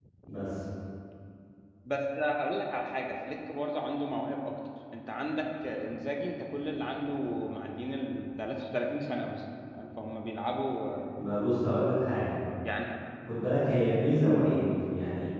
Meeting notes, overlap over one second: none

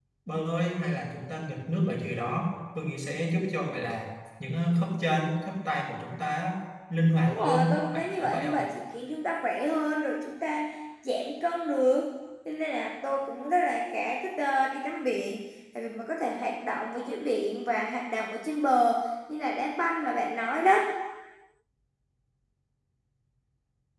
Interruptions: present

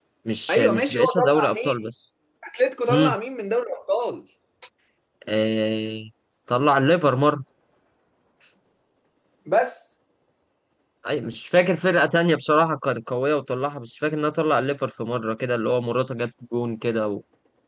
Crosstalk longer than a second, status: present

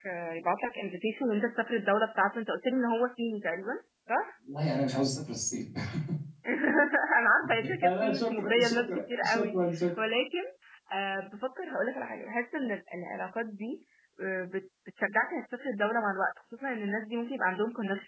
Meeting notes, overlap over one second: present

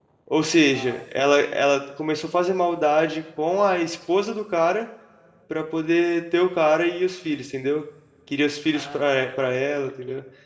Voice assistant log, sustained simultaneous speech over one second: present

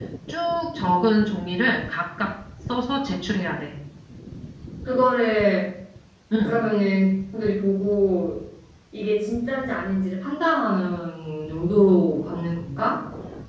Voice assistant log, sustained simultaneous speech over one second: none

